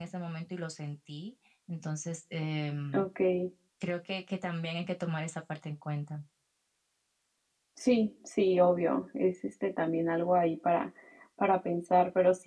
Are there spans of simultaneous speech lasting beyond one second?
No

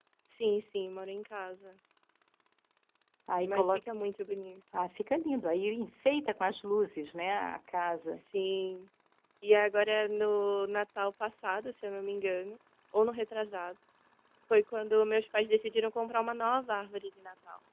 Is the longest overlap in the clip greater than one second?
No

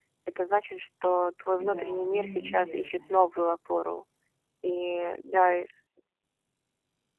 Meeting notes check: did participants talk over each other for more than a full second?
Yes, from 1.5 s

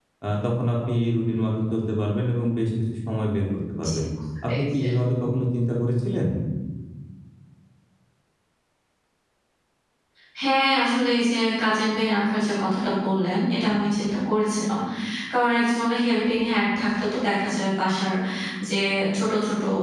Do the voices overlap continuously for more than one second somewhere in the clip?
No

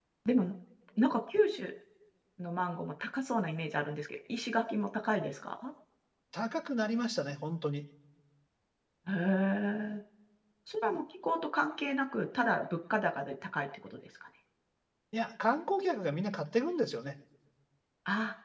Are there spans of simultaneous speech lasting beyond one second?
No

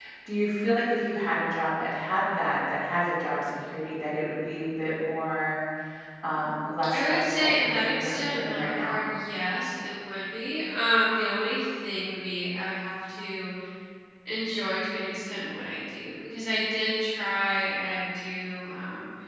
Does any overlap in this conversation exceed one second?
Yes, from 6.9 s

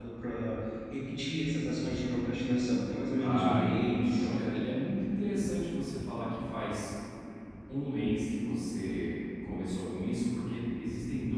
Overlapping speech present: Yes, from 3.2 s

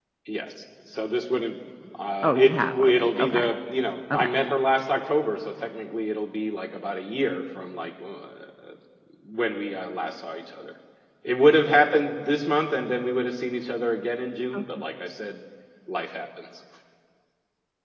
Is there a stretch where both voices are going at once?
Yes, from 2.2 s

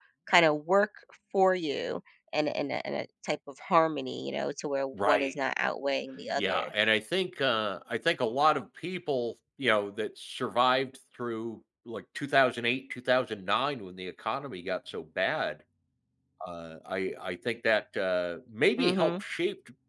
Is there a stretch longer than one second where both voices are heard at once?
No

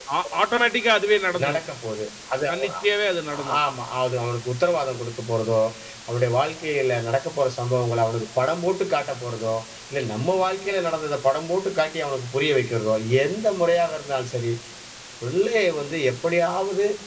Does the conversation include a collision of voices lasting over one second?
No

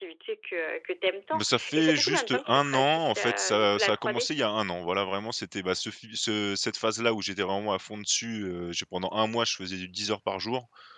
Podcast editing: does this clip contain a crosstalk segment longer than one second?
Yes, from 1.3 s

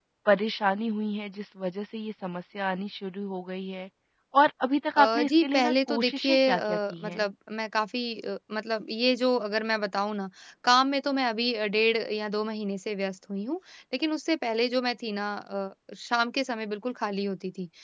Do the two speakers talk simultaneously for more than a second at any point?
Yes, from 5.0 s

